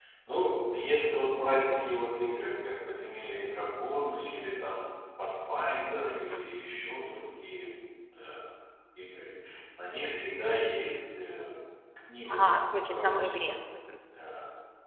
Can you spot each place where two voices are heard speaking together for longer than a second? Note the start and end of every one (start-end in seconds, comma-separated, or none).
12.3-13.5